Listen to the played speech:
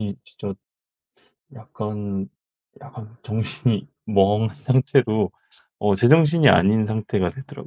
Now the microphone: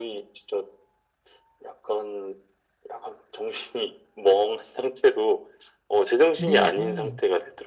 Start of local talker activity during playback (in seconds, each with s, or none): 6.3 s